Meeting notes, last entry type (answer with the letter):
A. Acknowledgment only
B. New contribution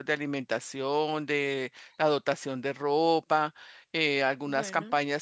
A